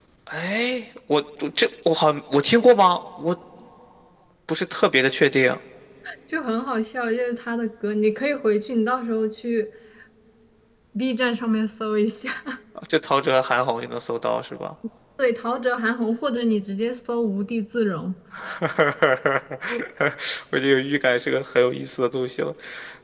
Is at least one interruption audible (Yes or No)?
No